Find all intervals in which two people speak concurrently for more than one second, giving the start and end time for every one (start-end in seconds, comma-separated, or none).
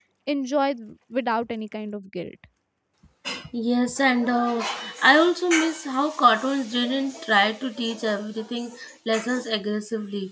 none